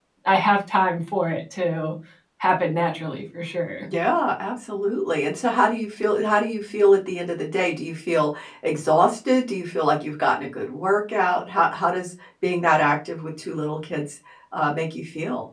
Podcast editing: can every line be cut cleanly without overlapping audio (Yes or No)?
Yes